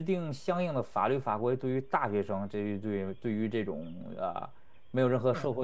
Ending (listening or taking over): listening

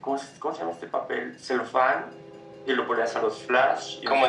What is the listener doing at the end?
listening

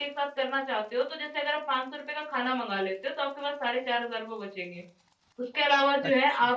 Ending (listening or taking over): listening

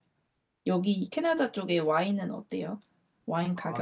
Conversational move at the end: taking over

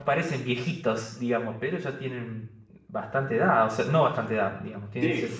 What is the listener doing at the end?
listening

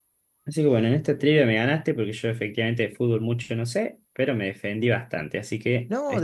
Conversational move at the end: taking over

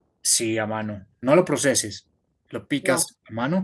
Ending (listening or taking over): listening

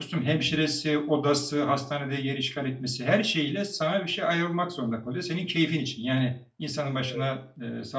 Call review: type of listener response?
listening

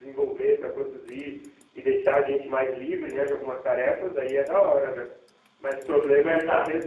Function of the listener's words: listening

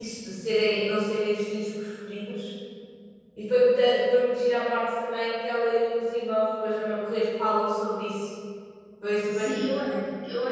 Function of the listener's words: taking over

